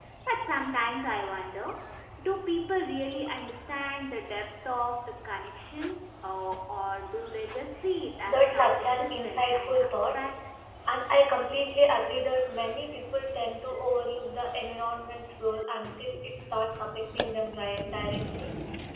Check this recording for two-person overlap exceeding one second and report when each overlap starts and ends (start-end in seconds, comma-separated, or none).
8.3-10.1